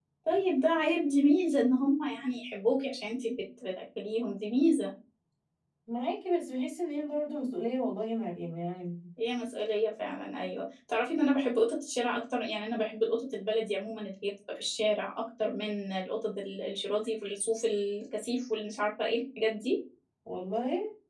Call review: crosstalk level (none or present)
none